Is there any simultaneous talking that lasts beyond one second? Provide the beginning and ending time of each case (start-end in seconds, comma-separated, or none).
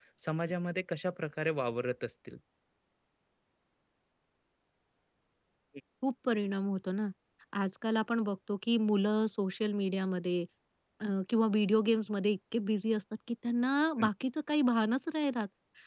none